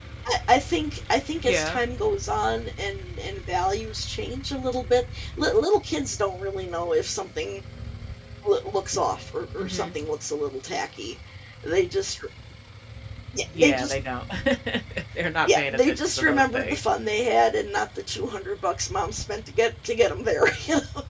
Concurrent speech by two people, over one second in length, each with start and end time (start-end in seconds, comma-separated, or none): 15.4-16.8